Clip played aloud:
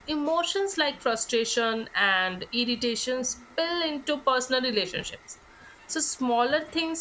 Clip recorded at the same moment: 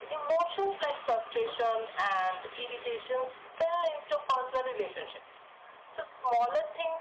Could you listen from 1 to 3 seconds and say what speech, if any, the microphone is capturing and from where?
echo only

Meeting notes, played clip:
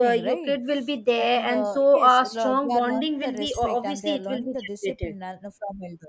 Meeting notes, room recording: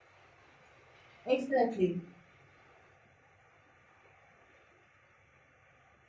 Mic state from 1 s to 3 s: user only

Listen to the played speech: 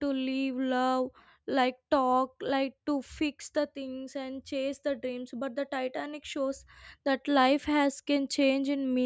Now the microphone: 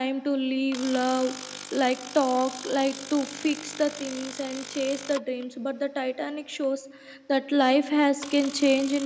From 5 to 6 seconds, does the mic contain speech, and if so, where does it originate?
echo only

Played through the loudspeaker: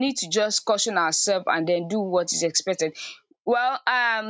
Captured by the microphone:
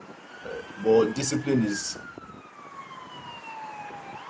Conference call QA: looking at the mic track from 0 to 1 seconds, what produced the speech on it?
user only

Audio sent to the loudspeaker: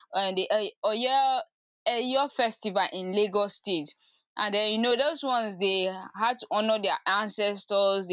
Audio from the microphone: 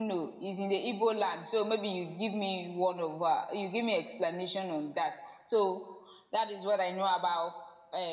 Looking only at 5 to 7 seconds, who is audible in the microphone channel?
user only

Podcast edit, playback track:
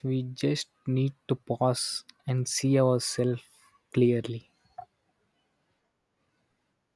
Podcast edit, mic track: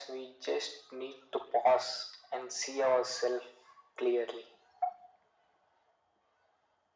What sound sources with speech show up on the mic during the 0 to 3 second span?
echo only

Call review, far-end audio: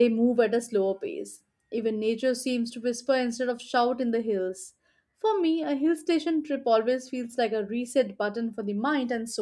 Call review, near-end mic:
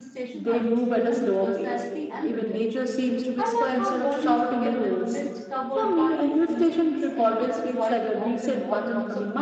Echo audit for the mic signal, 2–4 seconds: both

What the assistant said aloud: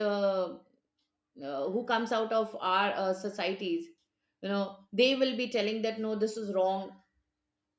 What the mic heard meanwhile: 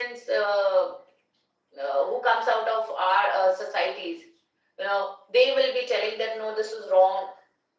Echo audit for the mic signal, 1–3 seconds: echo only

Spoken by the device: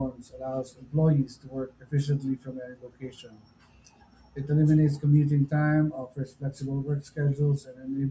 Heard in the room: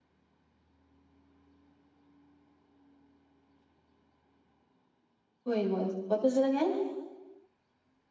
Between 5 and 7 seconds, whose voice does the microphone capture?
user only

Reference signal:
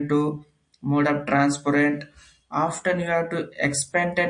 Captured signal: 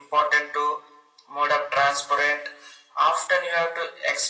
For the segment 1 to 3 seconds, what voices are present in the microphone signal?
echo only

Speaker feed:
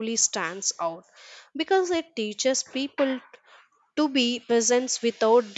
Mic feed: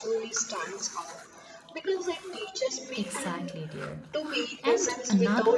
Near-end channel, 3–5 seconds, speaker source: both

